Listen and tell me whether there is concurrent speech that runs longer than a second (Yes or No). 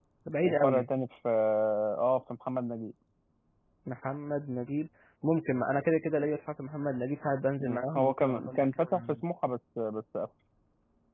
Yes